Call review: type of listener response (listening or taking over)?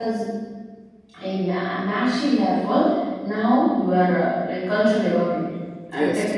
listening